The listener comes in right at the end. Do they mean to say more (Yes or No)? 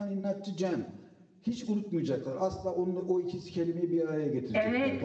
Yes